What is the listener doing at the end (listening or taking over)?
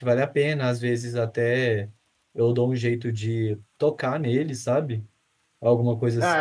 taking over